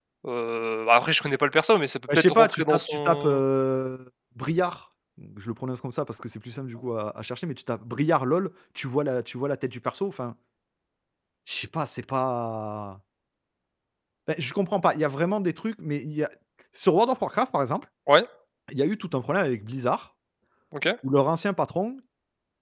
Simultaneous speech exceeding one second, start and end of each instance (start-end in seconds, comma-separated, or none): 2.1-3.4